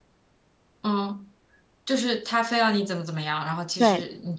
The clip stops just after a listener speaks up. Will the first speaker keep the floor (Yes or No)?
No